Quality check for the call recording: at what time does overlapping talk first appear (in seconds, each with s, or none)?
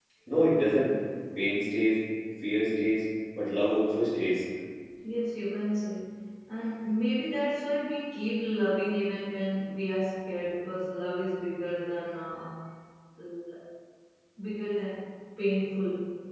none